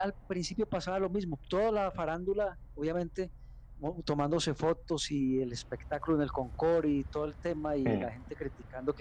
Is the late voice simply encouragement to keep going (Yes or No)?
Yes